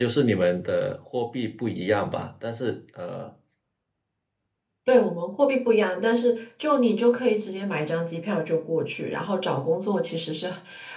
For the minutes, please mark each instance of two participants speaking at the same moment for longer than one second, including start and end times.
none

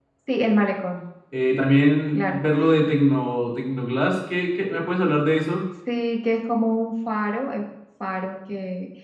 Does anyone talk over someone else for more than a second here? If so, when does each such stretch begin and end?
none

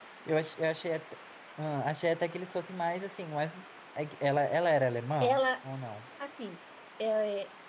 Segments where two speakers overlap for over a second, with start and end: none

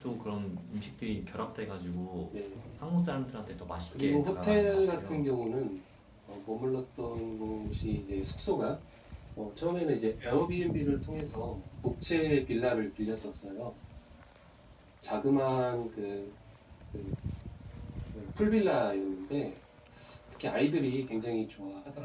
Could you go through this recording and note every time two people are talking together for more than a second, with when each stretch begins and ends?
3.9-5.3

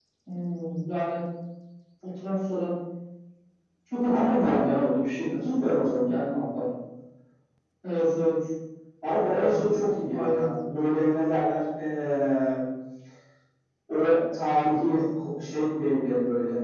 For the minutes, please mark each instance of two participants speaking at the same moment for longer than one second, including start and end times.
4.1-5.3

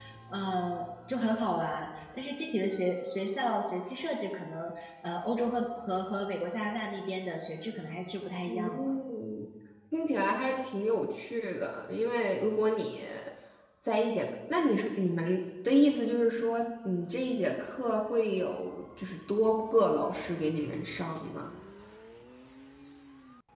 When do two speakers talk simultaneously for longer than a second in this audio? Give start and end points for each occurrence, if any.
none

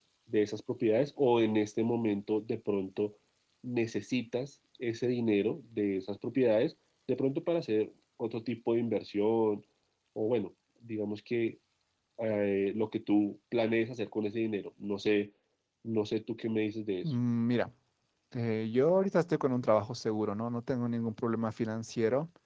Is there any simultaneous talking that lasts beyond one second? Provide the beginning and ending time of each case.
none

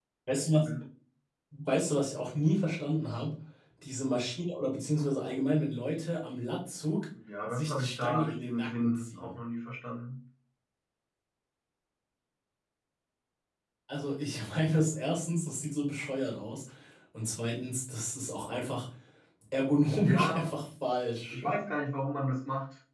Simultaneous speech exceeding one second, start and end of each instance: 7.5-9.3

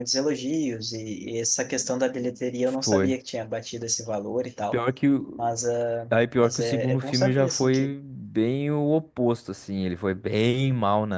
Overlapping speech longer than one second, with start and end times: 6.4-7.9

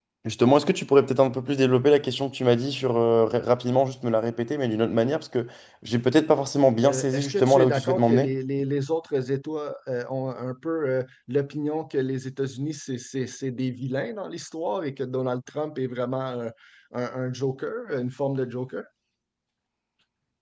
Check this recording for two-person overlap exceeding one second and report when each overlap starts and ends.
6.8-8.3

